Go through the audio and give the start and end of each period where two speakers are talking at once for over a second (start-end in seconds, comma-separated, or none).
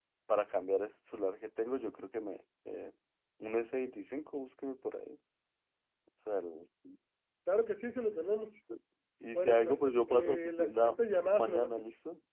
9.3-11.0